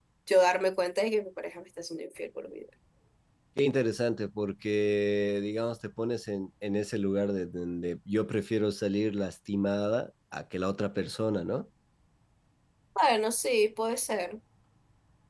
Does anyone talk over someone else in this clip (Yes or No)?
No